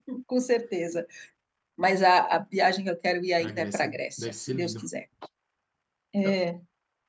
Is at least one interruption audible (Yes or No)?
Yes